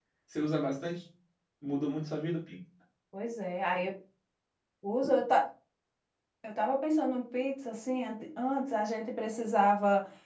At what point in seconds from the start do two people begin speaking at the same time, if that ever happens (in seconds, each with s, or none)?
none